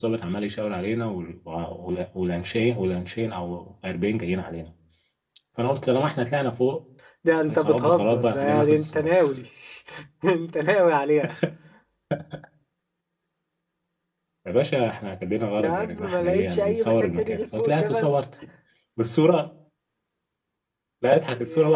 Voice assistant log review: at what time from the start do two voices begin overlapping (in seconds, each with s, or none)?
7.5 s